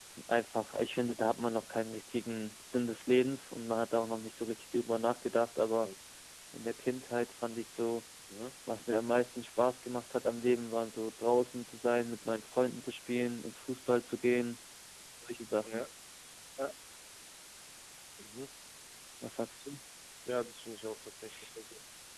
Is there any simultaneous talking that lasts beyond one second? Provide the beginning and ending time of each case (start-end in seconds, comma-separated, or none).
none